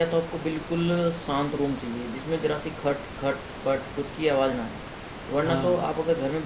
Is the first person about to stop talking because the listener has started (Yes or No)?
No